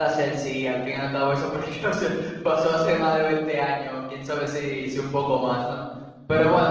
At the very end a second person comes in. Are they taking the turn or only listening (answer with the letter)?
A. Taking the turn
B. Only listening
B